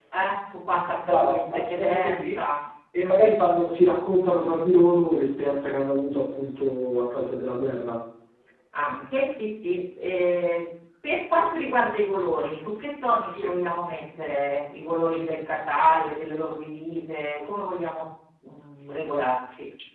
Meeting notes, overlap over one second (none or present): present